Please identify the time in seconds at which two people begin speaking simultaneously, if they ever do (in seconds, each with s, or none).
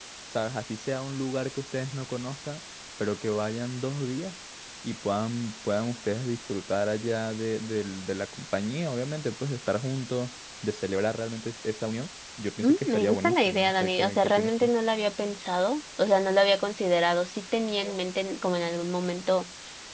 12.6 s